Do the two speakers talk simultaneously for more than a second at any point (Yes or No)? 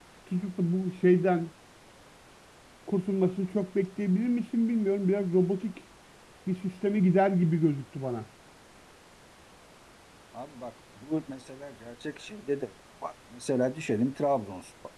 No